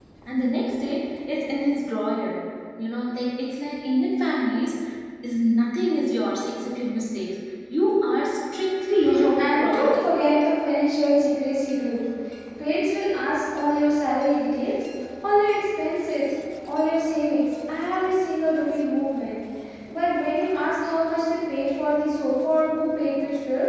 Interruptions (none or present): present